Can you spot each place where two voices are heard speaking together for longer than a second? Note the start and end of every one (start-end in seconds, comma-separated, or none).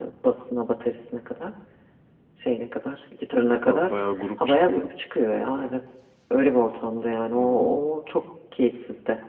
none